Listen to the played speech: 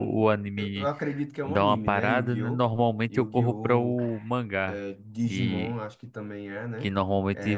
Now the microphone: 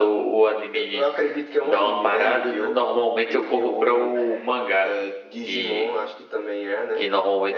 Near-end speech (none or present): none